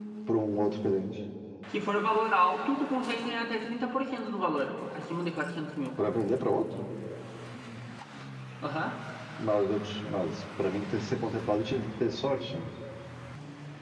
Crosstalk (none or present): none